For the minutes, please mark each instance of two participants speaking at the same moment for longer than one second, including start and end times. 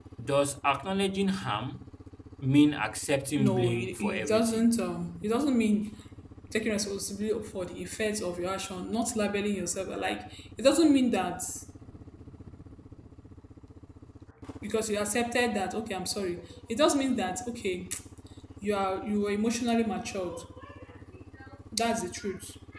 3.4-4.7

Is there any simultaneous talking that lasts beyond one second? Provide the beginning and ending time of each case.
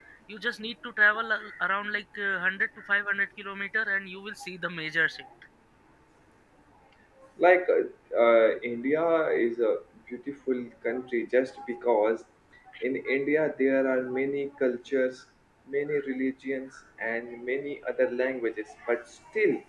none

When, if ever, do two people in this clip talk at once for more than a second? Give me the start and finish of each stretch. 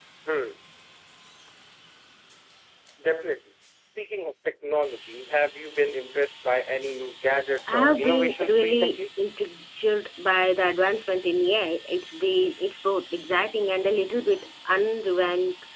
7.7-9.0

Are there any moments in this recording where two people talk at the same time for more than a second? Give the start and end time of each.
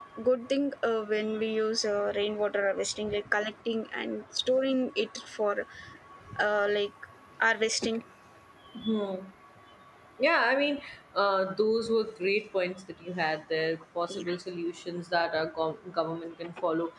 none

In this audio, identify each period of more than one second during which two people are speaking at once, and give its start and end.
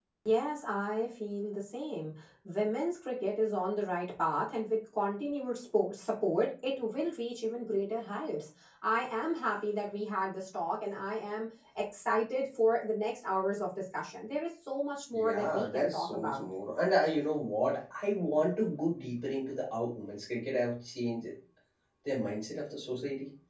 15.1-16.4

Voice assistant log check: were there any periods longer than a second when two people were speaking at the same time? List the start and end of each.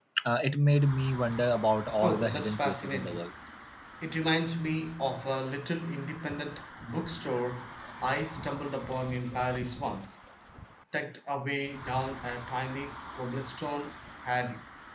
2.0-3.2

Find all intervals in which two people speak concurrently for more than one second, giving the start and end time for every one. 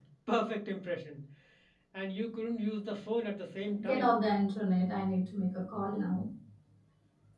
none

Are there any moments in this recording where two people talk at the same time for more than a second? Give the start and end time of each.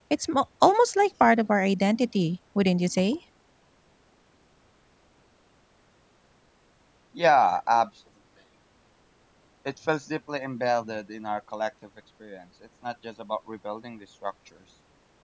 none

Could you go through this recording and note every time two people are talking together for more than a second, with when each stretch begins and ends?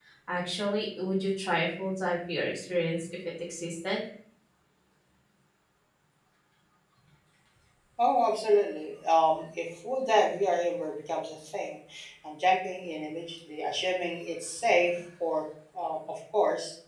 none

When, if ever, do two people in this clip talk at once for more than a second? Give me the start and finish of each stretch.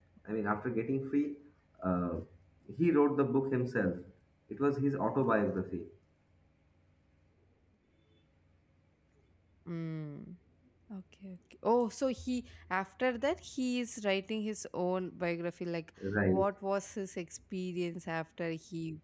none

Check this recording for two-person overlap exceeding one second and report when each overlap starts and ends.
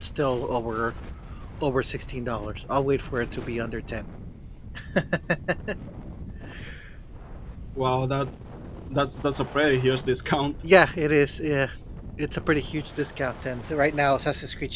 none

